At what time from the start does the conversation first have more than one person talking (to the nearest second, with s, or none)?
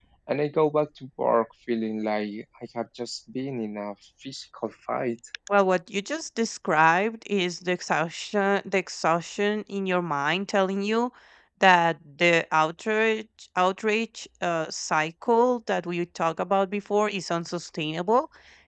none